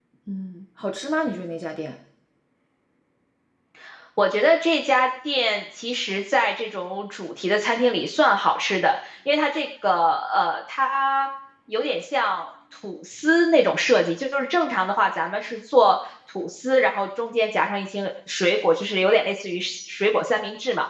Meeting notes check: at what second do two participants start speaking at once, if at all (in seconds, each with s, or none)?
none